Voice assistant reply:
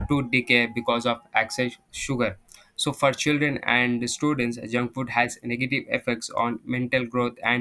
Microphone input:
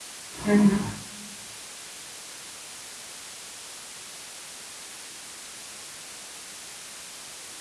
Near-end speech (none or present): present